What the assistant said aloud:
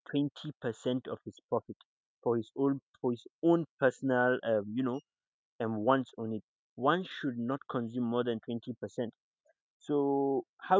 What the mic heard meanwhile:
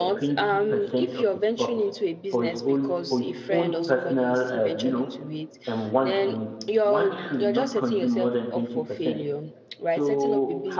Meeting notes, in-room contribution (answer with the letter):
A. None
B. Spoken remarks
B